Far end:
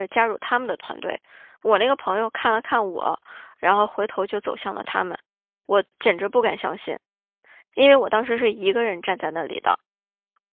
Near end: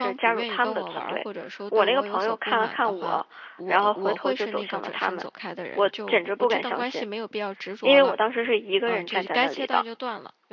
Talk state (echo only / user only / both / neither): both